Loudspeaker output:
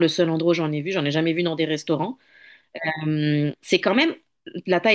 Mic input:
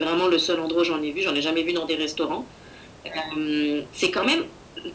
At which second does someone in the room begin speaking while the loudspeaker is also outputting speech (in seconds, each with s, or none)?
none